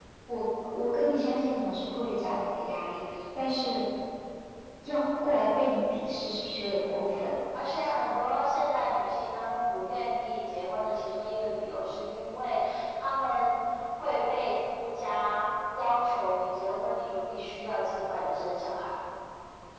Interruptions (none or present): none